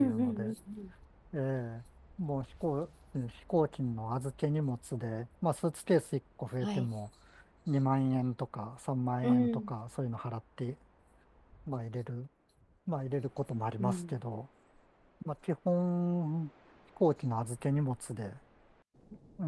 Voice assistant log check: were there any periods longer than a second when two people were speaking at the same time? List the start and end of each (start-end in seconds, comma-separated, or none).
none